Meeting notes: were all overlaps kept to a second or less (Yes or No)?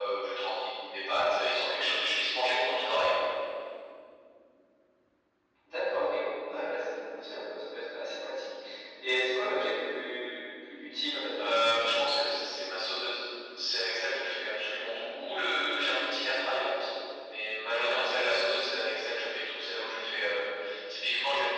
Yes